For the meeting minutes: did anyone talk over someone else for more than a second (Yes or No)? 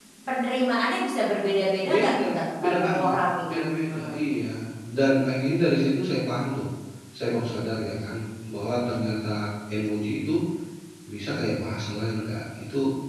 Yes